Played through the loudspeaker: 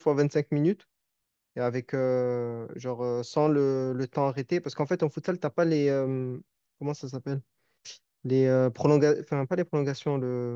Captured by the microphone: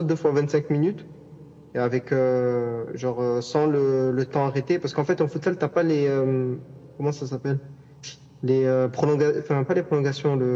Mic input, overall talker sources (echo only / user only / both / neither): echo only